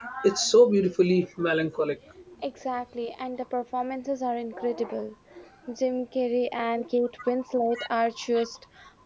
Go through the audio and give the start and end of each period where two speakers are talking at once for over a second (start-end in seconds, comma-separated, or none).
none